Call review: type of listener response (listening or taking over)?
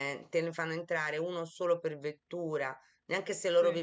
listening